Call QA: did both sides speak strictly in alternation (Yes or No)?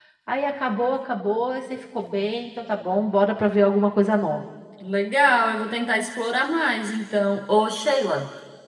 Yes